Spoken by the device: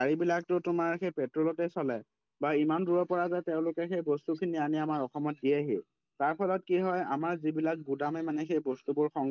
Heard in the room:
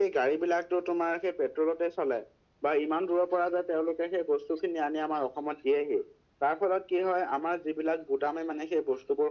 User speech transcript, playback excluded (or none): none